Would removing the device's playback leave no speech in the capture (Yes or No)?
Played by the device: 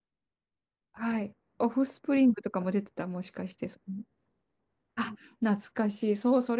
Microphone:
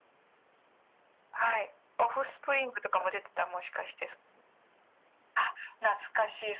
Yes